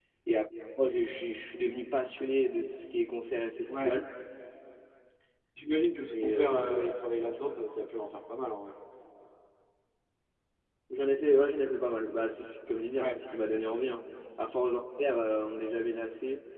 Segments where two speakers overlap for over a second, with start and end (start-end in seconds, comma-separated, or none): 6.1-7.4